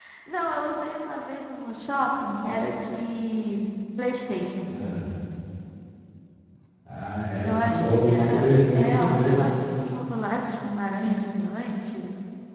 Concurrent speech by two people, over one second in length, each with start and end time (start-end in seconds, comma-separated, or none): 7.4-9.4